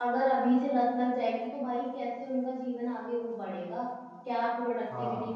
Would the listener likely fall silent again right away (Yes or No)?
Yes